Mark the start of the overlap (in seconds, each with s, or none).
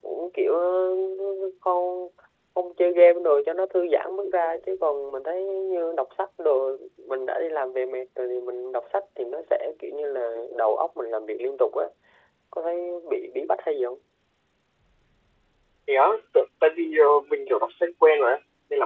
none